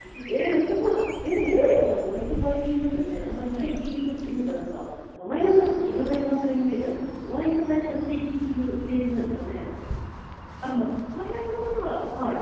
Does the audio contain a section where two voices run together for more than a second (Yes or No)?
No